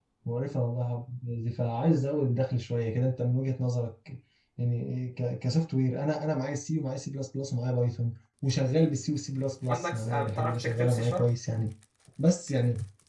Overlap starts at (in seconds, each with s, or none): 9.7 s